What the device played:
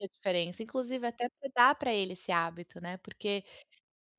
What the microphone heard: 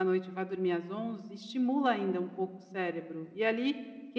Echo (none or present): none